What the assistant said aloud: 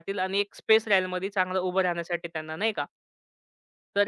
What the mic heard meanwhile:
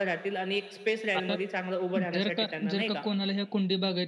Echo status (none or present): present